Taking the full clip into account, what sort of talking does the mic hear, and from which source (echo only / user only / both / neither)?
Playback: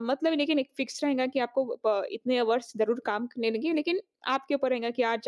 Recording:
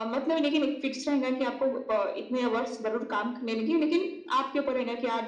echo only